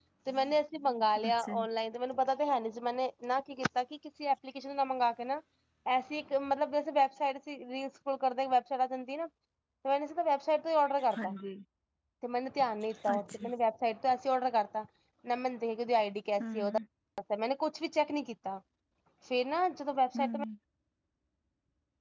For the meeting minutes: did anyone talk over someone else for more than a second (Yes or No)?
No